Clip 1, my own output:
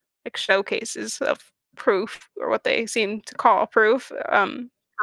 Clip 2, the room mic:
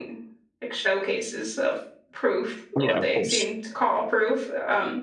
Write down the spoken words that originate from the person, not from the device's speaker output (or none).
Yeah, of course.